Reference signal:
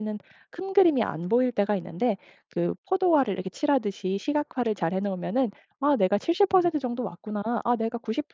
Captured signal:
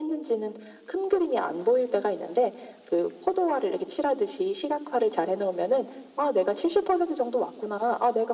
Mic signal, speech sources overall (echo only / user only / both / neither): echo only